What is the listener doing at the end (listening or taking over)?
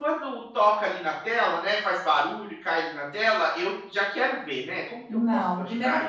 taking over